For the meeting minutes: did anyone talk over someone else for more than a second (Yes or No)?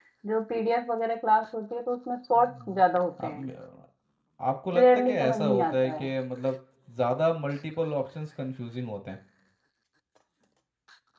Yes